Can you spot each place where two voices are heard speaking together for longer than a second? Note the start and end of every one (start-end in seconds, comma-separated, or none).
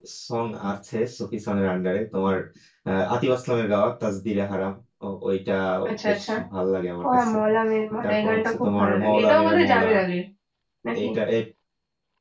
8.0-9.8